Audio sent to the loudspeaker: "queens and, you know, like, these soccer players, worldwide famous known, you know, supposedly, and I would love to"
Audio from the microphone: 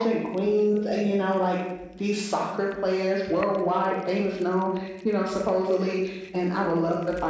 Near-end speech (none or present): none